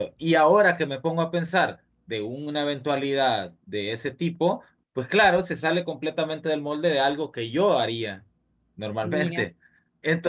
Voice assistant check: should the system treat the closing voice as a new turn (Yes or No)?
No